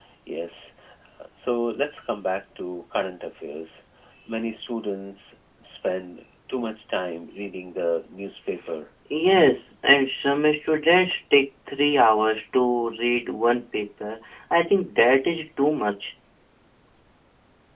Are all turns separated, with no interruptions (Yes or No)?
Yes